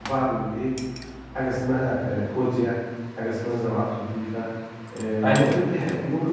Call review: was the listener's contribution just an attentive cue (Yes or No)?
Yes